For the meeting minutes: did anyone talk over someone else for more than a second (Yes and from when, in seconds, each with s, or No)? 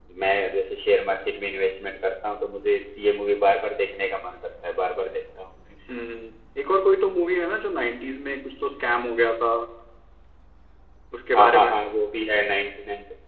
No